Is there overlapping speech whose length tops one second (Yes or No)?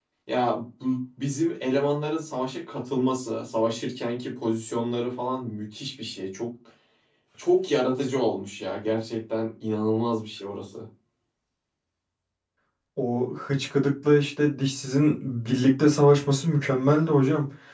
No